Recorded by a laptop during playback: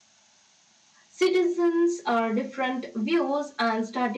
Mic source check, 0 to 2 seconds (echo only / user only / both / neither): user only